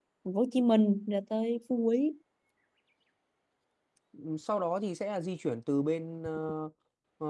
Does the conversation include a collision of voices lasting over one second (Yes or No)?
No